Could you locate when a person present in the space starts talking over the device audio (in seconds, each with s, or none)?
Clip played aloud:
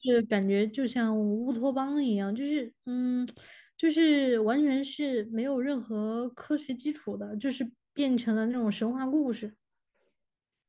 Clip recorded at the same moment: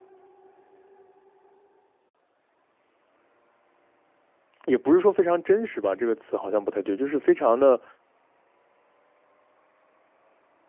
4.6 s